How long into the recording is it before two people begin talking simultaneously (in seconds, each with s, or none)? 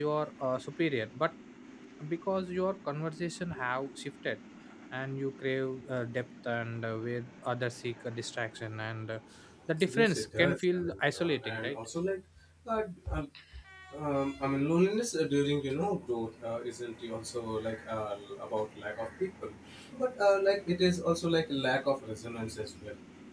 9.9 s